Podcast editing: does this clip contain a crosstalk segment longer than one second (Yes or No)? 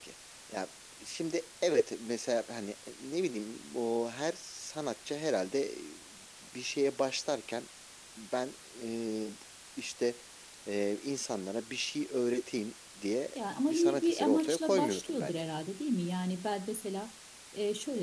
Yes